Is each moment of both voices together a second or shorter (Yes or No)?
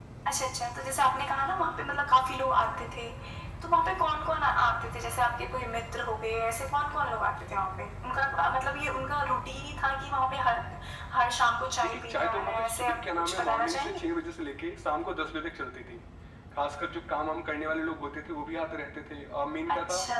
No